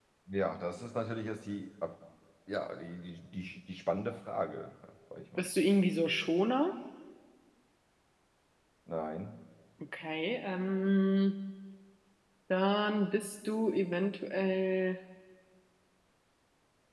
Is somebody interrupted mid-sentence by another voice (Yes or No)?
No